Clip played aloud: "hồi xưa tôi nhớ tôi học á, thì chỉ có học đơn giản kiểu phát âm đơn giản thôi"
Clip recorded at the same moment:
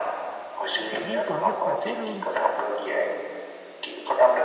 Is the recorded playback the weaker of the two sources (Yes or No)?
No